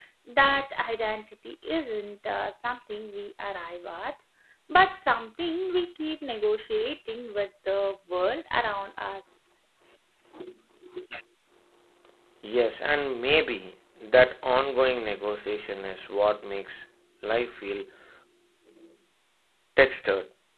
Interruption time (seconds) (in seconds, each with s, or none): none